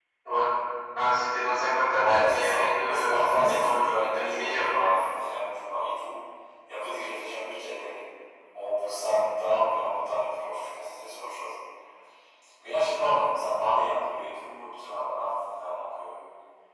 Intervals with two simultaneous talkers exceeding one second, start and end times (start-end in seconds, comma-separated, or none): 1.9-4.8